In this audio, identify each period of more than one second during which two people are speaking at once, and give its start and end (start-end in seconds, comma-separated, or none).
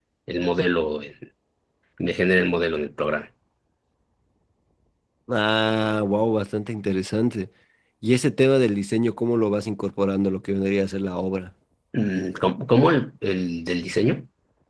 none